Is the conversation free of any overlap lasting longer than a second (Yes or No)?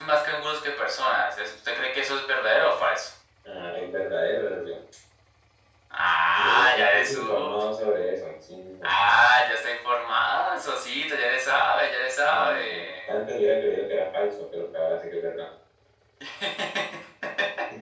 No